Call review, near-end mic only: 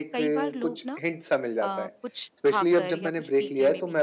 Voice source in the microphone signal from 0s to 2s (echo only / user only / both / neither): both